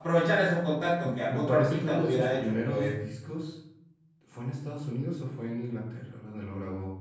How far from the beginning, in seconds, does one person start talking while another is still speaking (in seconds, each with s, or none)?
1.0 s